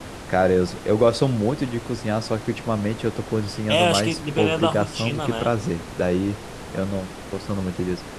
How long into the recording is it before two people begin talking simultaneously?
3.7 s

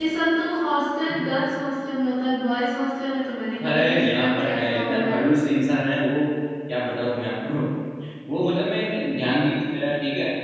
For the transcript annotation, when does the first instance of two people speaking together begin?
3.6 s

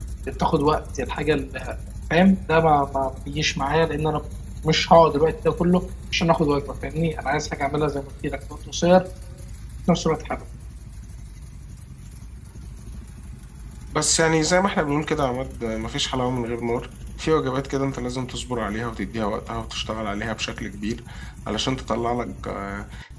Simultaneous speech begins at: none

